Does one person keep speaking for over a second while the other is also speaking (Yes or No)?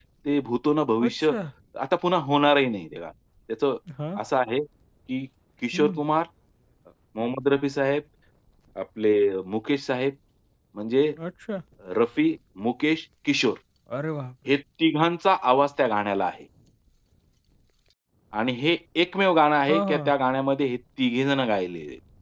No